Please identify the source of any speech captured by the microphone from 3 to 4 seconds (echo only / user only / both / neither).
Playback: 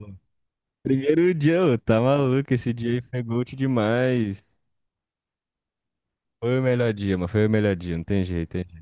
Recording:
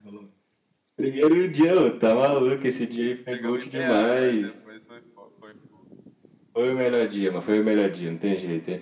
both